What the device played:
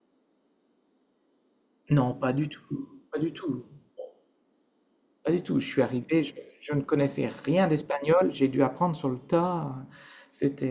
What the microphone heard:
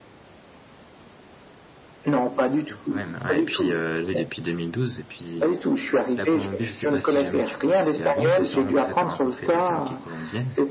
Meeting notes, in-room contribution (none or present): present